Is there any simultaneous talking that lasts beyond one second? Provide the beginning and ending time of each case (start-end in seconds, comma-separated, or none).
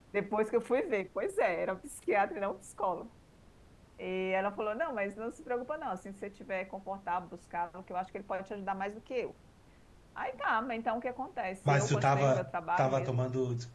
11.7-13.1